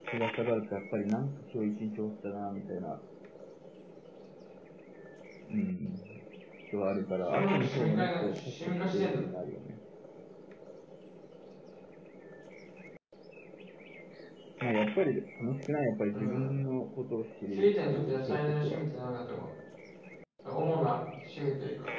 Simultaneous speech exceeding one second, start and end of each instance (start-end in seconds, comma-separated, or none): 7.2-9.2, 17.5-18.8